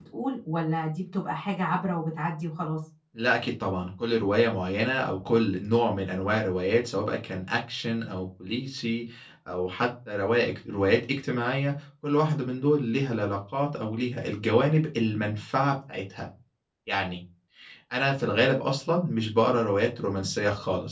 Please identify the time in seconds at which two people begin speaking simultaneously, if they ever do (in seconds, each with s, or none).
none